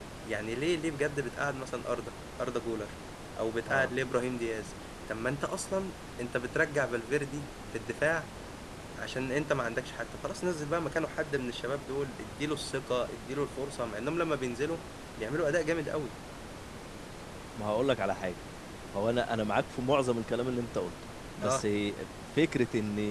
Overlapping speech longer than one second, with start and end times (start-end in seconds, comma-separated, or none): none